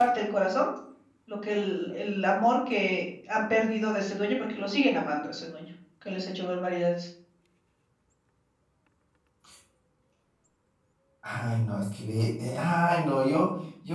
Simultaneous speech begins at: none

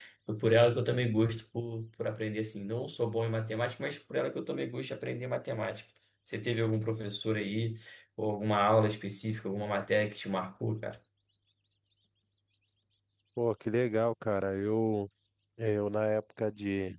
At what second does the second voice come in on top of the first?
none

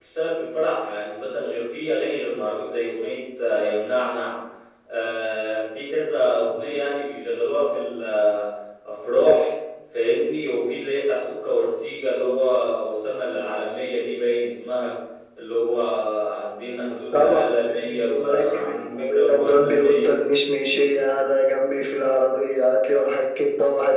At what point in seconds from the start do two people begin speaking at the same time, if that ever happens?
17.1 s

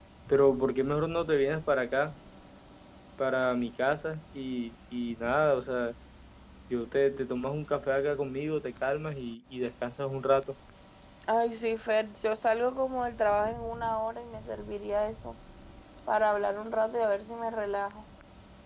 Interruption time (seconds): none

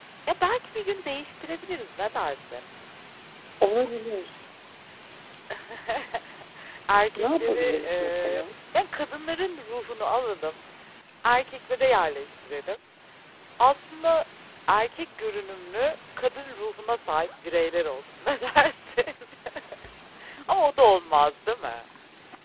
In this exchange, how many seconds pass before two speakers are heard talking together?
7.2 s

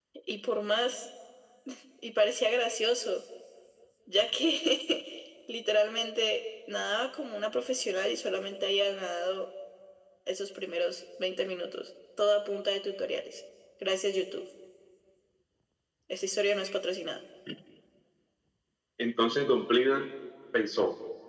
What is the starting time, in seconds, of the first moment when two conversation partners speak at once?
none

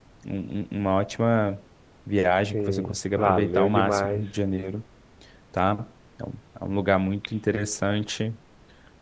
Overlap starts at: 2.5 s

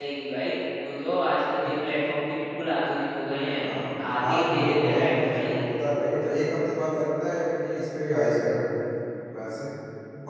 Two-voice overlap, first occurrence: 4.3 s

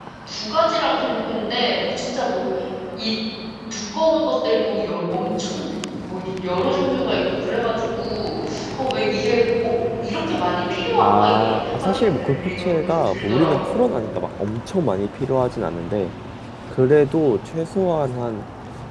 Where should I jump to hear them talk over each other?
11.0 s

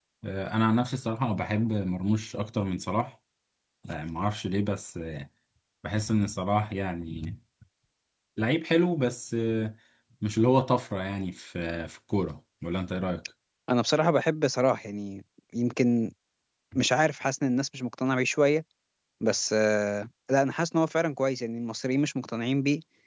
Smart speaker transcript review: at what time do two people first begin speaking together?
none

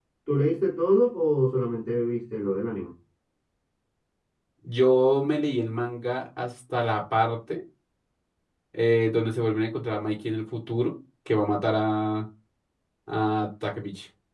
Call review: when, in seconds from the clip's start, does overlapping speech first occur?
none

